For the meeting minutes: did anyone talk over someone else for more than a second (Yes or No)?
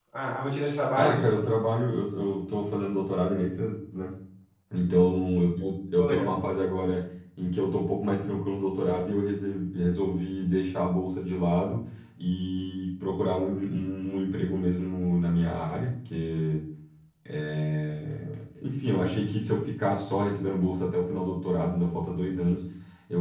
No